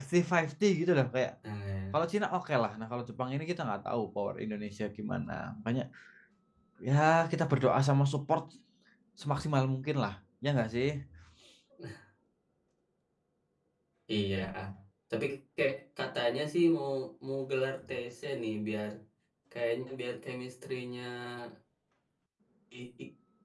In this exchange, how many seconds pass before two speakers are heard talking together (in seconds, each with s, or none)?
none